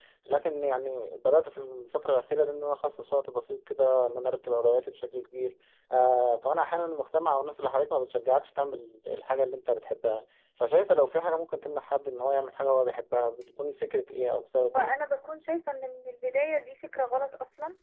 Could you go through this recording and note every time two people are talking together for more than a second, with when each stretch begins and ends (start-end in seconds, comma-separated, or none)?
none